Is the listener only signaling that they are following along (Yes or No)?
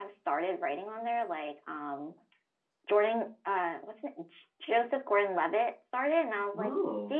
Yes